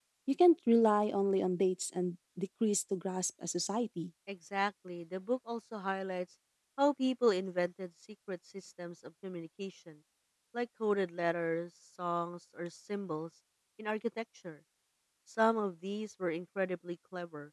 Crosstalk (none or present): none